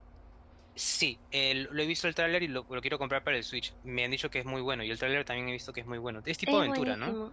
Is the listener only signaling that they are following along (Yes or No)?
No